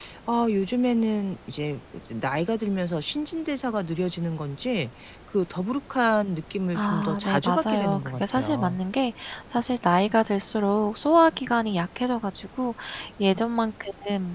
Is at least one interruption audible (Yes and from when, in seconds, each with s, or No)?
Yes, from 6.8 s